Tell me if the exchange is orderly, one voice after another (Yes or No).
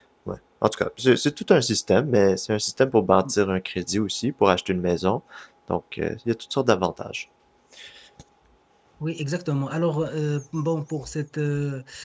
Yes